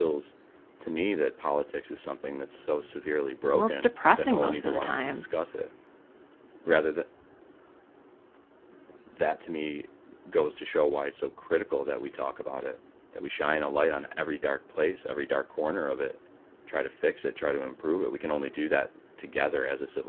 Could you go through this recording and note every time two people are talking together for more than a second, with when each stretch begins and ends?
3.5-5.2

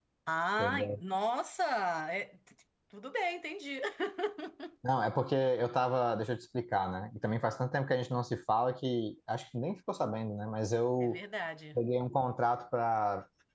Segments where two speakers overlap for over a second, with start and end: none

